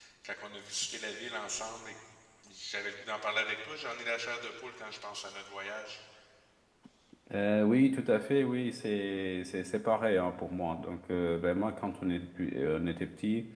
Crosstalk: none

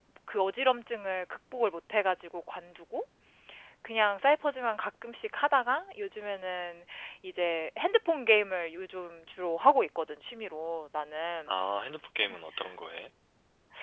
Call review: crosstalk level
none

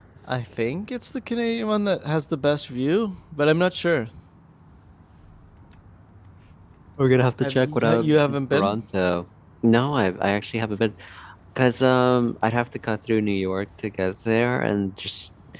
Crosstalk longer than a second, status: present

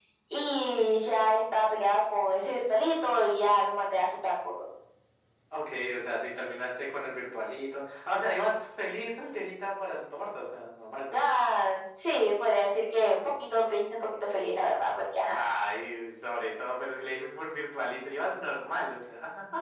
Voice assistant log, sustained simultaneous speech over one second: none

